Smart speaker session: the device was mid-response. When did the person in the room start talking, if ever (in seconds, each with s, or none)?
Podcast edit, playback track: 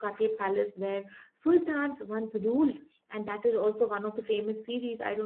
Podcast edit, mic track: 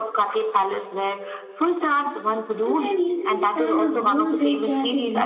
2.6 s